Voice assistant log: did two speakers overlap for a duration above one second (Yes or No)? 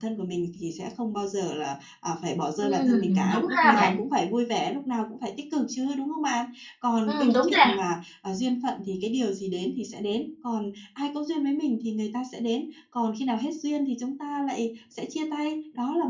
Yes